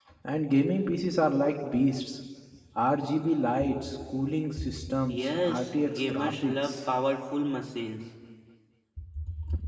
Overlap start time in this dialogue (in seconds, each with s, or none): 5.1 s